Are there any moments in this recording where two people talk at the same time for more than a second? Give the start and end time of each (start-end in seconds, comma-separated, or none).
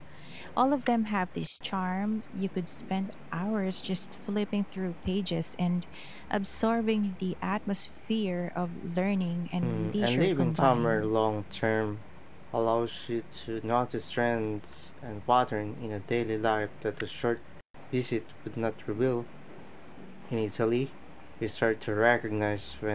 9.6-11.1